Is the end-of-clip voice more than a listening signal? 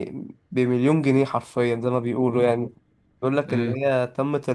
No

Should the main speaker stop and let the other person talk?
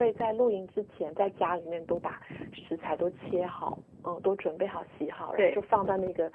No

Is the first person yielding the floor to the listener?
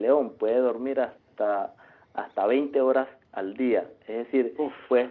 No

